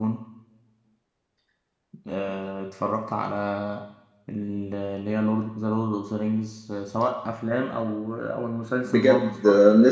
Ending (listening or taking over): taking over